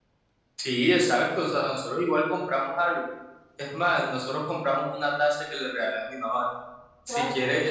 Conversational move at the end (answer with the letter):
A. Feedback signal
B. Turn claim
A